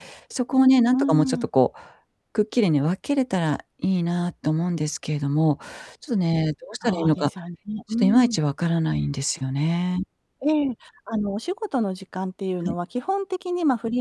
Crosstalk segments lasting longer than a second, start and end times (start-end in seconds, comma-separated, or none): none